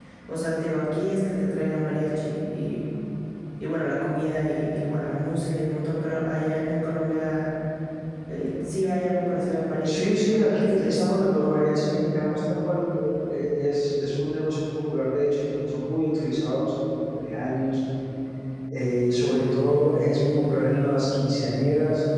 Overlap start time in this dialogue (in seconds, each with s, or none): 9.8 s